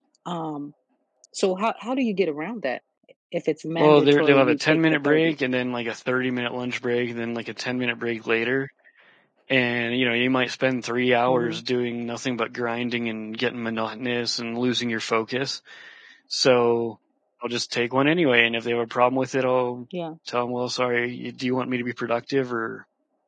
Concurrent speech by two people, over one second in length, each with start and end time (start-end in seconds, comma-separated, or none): 3.8-5.3